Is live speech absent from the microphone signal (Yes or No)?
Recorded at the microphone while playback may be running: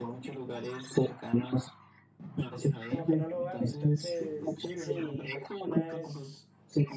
No